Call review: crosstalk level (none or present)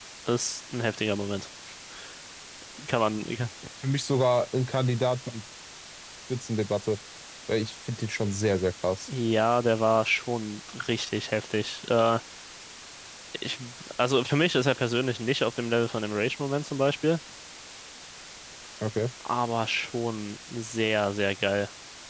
none